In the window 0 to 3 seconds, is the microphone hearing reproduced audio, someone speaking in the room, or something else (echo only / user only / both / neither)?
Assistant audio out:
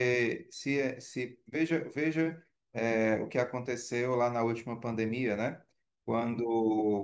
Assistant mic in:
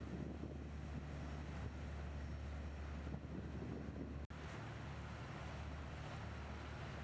neither